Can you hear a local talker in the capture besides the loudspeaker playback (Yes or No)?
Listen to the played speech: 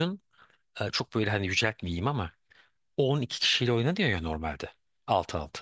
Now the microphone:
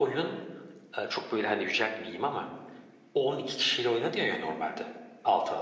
No